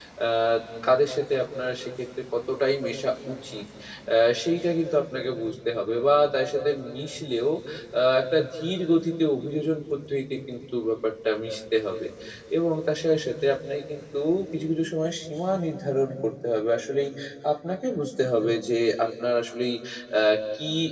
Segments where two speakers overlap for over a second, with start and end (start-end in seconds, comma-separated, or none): none